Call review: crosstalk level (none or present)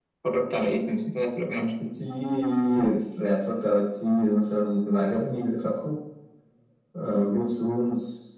none